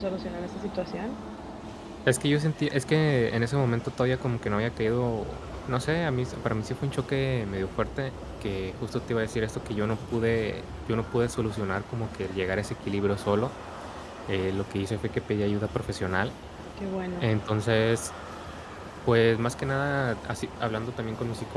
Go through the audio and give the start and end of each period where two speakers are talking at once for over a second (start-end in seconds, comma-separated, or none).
none